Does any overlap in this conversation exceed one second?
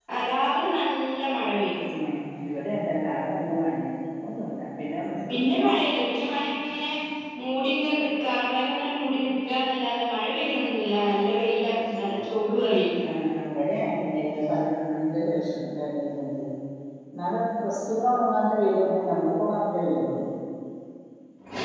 No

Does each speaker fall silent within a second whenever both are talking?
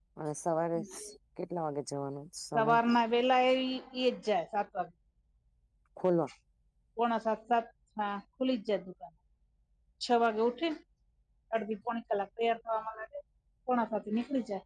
Yes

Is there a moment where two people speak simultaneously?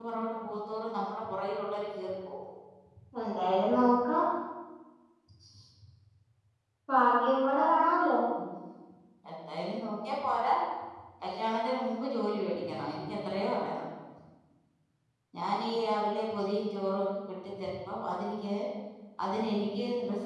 No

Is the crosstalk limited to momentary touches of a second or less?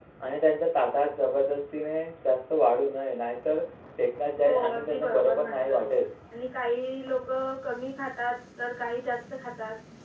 No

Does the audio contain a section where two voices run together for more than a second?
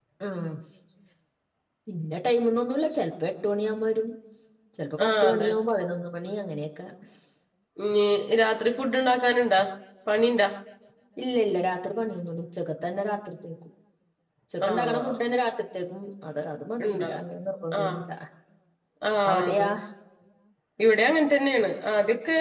No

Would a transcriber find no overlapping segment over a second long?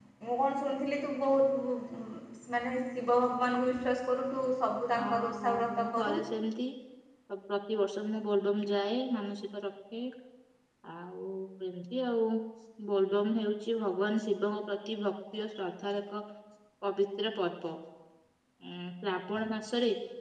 No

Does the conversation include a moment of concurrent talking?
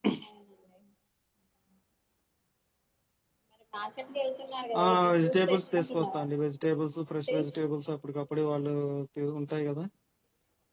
Yes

